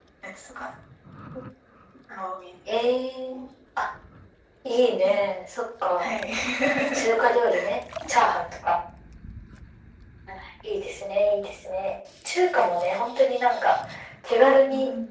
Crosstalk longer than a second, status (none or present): none